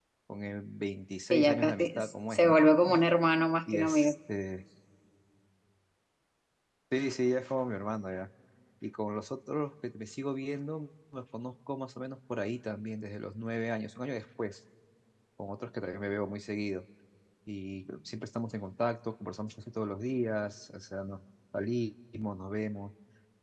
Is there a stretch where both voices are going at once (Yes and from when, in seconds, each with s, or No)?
Yes, from 1.3 s